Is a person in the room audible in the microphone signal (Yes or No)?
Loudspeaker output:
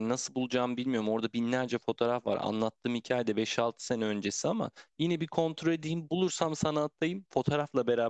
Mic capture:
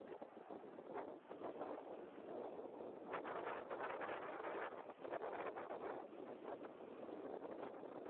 No